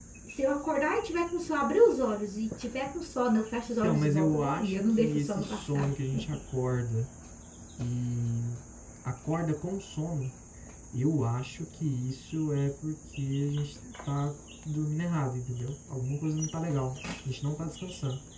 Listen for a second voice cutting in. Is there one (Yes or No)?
Yes